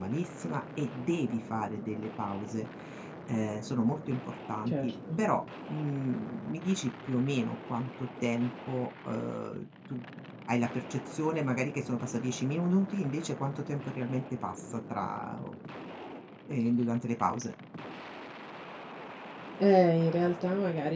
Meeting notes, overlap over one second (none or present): none